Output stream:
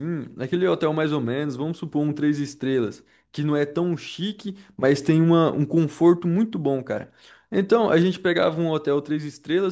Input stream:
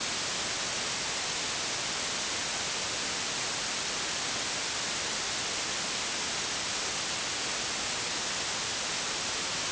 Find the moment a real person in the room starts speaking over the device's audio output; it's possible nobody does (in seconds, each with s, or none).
none